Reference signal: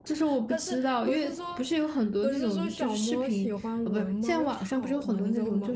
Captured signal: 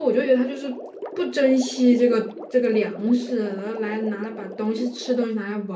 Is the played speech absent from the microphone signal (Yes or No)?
Yes